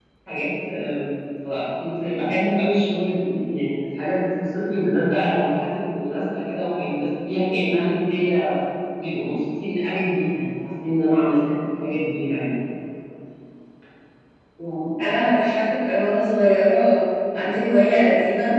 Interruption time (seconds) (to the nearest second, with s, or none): none